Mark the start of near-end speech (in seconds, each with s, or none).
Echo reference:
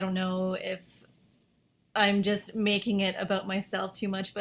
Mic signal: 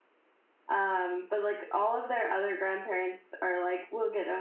0.7 s